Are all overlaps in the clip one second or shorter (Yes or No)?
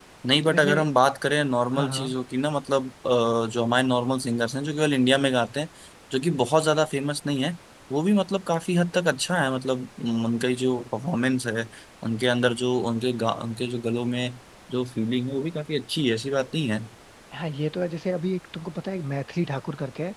Yes